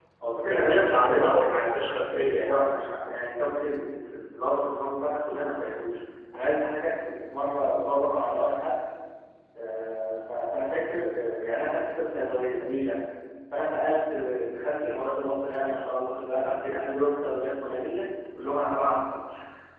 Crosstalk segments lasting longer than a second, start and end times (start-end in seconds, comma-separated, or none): 0.5-2.6